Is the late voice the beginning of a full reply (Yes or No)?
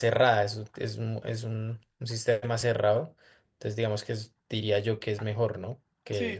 Yes